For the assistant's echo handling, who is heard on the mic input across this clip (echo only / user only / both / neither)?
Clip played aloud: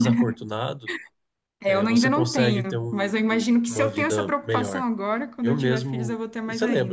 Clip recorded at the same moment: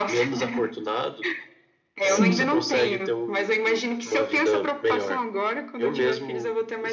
both